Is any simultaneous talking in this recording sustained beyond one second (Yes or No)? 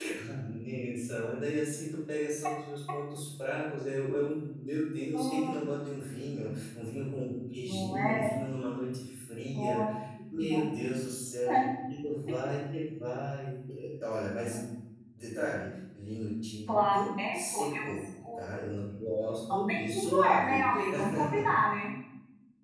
Yes